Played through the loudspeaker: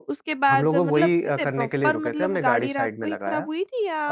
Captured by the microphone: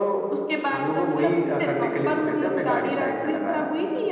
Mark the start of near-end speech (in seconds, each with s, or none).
none